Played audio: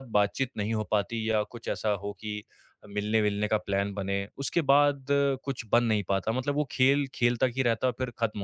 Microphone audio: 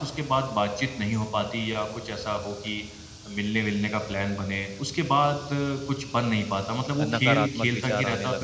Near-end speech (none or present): present